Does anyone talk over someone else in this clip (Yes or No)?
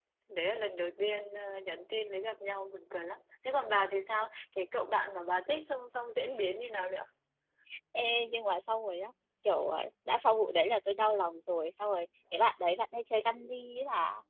No